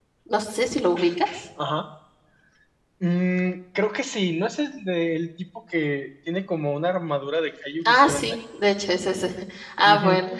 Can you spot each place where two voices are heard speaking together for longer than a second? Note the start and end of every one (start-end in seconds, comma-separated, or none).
none